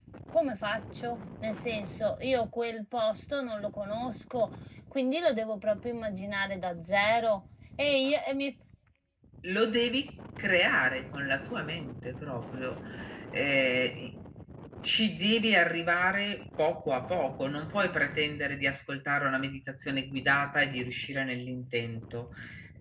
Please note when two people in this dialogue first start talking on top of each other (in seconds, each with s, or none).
none